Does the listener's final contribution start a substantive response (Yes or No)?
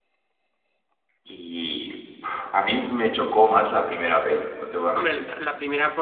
Yes